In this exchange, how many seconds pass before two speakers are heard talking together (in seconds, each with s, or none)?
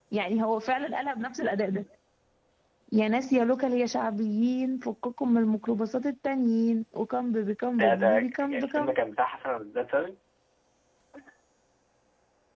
7.7 s